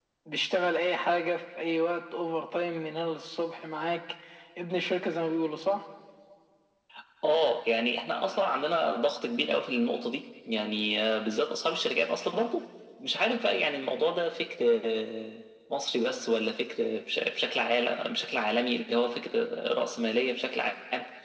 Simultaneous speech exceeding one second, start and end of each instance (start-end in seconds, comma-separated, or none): none